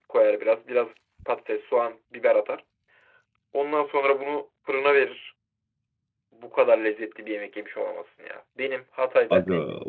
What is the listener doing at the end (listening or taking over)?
listening